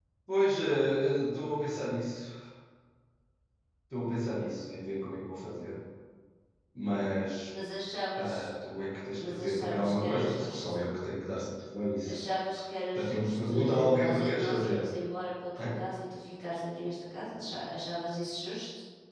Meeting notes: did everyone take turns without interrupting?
No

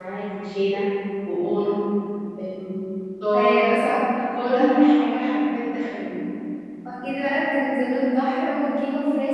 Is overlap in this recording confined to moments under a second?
Yes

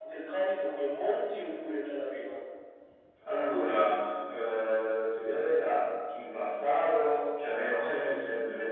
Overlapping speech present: No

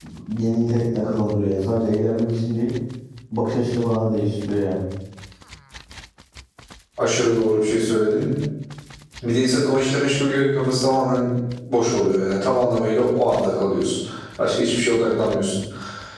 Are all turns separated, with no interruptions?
Yes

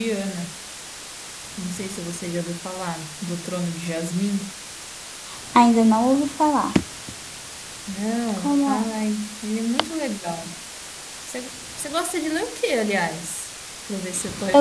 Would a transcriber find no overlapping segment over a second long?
Yes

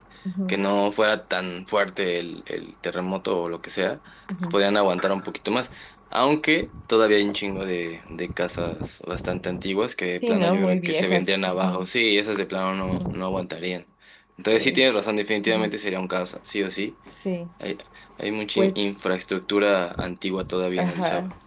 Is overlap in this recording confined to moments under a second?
No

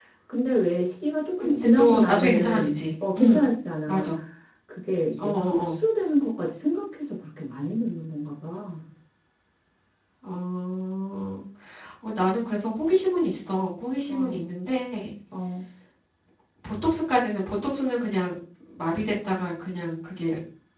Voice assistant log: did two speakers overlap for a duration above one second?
Yes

